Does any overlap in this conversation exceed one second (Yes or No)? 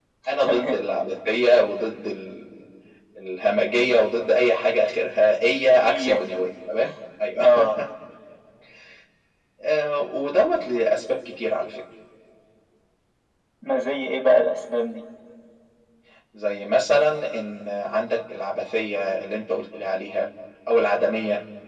No